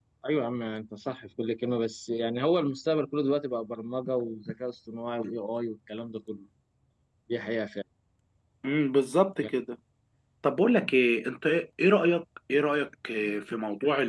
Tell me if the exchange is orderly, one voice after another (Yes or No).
Yes